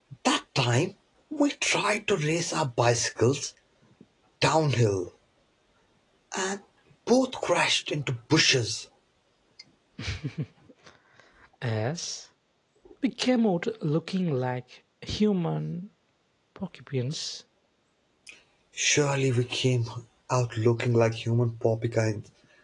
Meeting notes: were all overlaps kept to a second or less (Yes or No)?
Yes